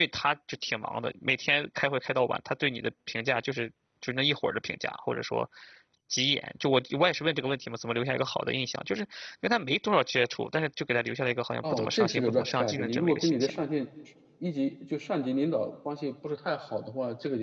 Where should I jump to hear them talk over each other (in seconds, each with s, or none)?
11.6 s